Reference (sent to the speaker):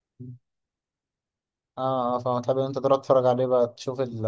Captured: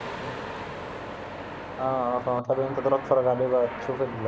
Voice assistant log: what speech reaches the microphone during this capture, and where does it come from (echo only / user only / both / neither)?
echo only